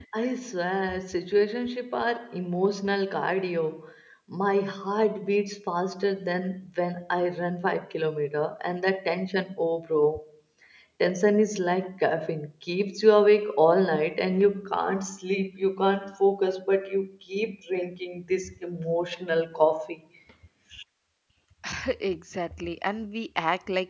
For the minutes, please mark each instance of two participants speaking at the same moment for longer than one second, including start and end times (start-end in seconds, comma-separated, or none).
none